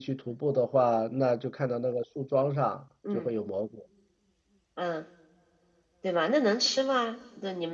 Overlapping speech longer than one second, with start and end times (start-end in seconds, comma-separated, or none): none